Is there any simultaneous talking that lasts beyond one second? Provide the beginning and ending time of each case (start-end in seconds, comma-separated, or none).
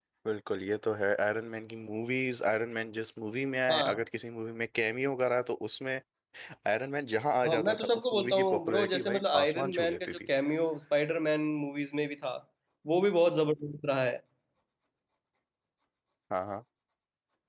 7.4-10.2